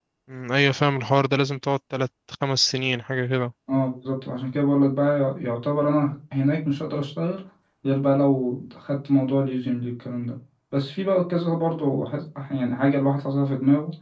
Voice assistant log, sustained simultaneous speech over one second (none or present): none